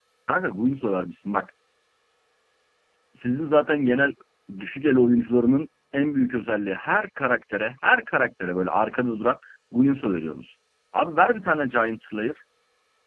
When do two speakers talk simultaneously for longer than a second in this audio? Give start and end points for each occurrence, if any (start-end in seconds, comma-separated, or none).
none